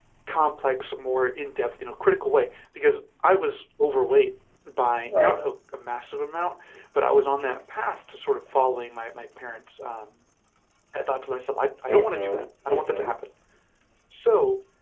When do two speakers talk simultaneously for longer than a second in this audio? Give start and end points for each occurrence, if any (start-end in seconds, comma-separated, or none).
11.9-13.1